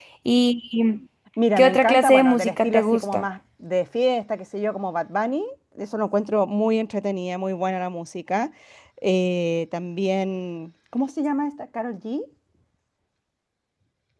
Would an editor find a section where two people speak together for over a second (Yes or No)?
Yes